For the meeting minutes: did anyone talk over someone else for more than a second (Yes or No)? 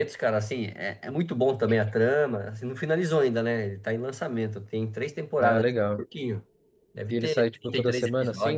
Yes